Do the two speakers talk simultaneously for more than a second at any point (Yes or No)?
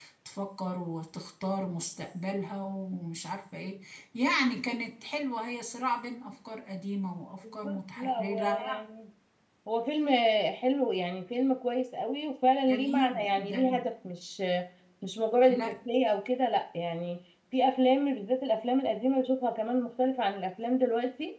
Yes